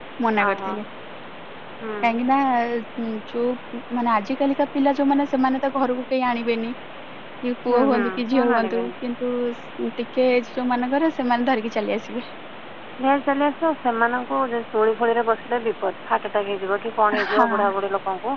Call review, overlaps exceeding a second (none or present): present